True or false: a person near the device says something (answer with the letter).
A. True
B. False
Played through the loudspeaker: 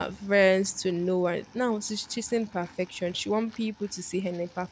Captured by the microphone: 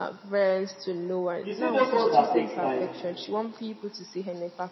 A